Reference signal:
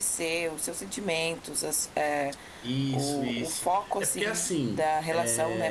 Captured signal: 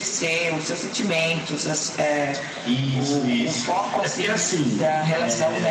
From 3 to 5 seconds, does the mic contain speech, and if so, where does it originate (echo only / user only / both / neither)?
echo only